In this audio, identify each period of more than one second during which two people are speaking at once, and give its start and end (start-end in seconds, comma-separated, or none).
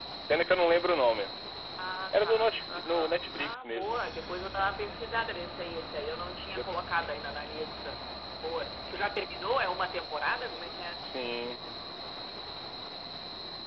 2.1-4.0